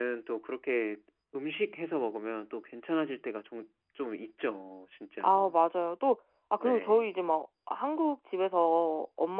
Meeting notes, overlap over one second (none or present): none